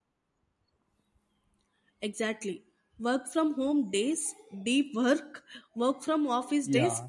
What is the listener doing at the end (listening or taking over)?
taking over